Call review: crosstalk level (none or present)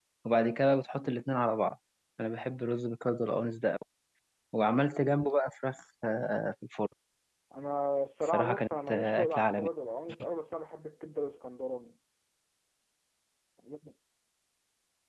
present